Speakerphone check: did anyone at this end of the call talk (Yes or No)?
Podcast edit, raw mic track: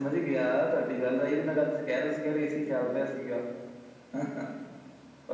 No